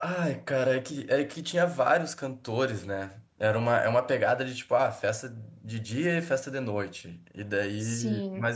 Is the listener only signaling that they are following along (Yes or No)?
Yes